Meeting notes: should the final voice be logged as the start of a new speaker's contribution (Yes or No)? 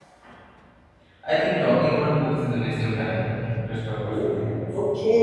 Yes